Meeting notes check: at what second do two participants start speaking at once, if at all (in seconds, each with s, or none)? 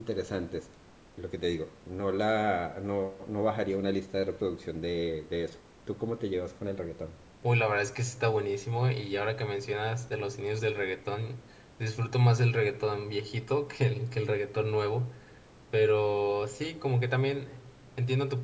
none